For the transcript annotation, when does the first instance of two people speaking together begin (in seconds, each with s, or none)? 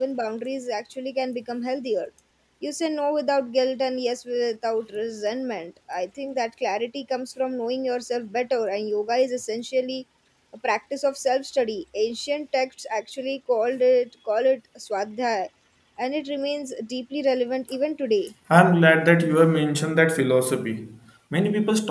none